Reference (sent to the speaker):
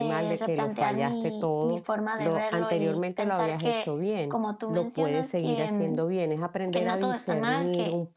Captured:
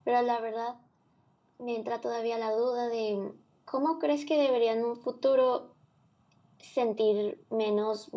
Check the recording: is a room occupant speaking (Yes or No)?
Yes